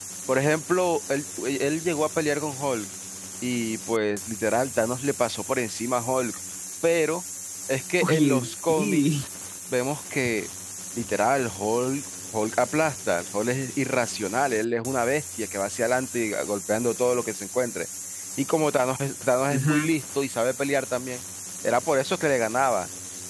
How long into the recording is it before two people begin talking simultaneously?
8.0 s

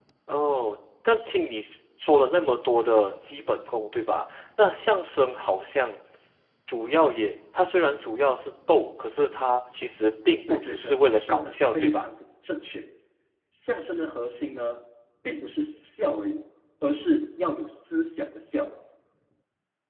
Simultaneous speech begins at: 10.5 s

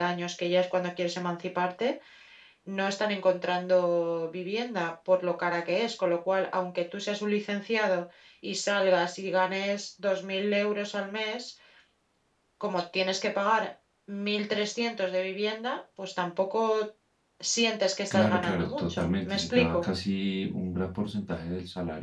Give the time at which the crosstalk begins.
18.1 s

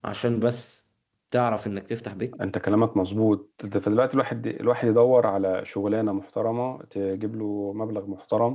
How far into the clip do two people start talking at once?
none

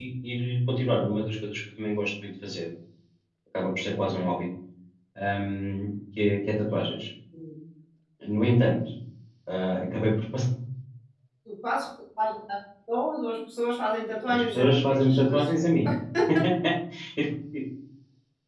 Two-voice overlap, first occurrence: 14.3 s

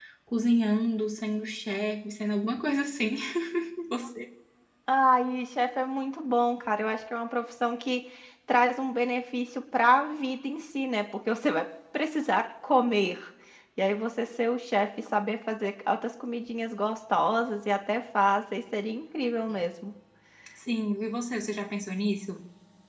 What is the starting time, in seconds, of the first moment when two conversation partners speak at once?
none

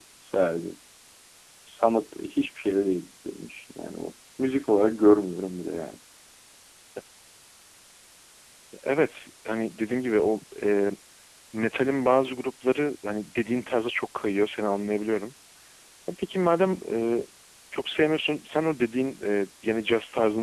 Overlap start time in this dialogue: none

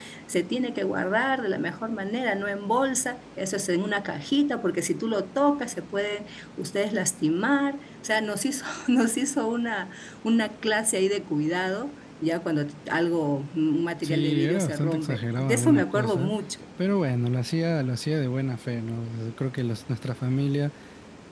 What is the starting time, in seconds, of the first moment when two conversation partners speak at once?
14.0 s

